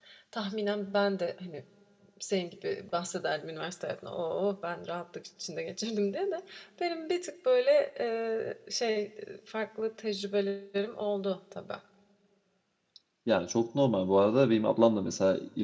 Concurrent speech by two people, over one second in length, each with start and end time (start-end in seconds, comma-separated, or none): none